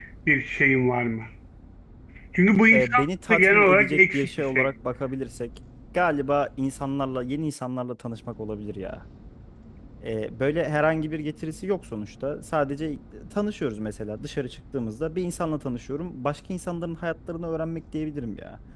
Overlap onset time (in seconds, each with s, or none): 2.7 s